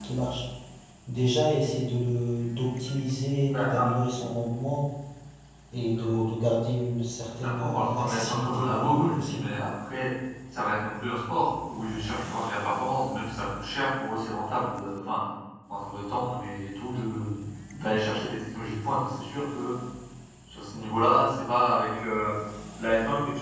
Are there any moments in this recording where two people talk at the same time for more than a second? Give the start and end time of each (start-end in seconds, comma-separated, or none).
7.4-9.4